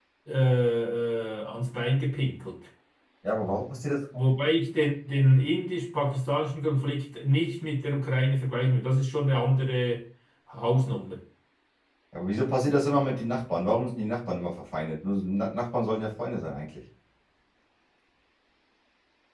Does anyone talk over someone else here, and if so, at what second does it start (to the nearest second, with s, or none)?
none